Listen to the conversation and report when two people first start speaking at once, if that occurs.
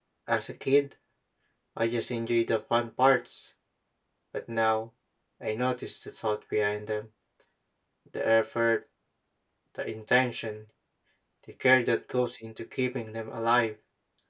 none

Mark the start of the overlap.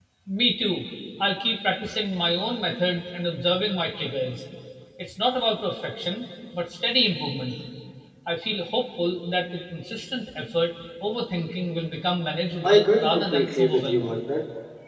12.6 s

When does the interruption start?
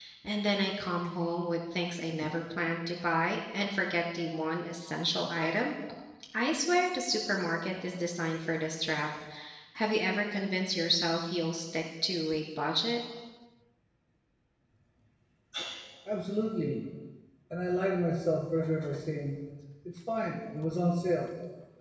none

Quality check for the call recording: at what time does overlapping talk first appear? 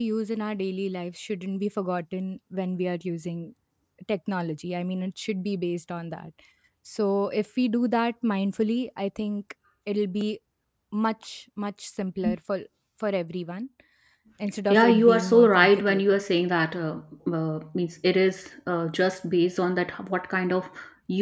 14.7 s

